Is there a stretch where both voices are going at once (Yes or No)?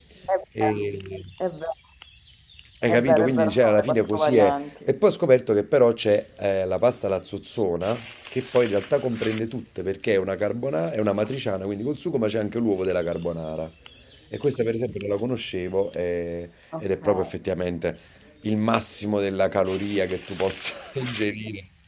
Yes